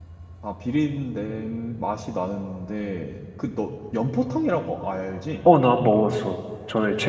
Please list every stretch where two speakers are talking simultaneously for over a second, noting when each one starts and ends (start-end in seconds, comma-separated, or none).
none